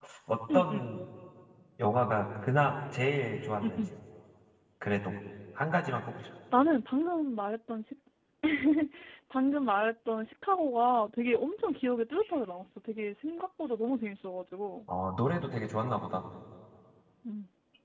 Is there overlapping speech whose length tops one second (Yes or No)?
No